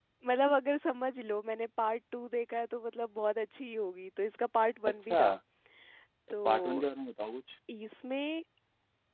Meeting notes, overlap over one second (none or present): none